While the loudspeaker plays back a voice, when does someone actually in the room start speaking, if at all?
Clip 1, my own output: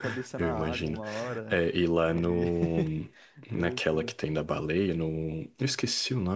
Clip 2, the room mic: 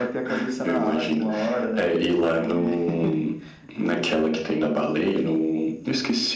none

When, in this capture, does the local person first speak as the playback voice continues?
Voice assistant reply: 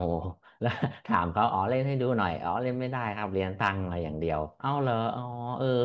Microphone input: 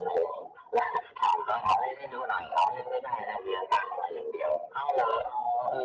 none

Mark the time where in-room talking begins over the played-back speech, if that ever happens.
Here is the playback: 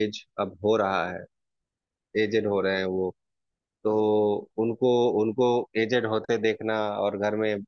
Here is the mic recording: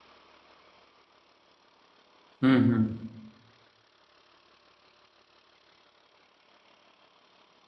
2.4 s

